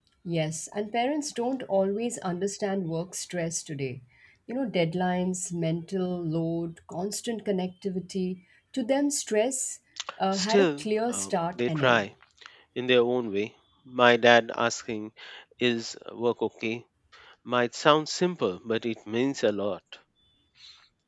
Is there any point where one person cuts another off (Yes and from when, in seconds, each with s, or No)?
Yes, from 10.3 s